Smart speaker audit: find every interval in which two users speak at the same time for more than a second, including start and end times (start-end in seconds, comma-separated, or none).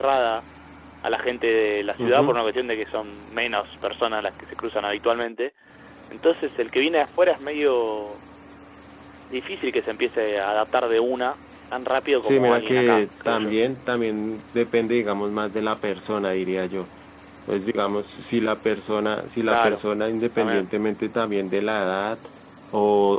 12.2-13.6